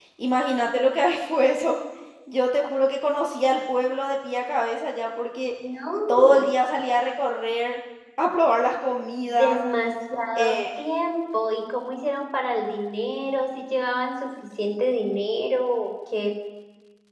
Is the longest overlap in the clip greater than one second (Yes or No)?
No